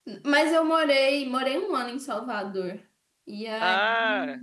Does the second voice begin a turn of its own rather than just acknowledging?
No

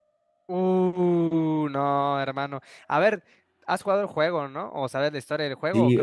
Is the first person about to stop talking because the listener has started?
Yes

